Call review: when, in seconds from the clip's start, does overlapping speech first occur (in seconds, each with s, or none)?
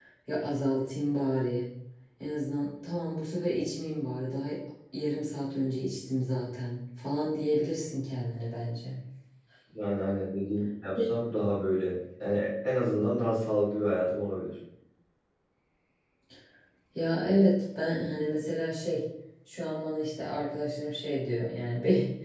none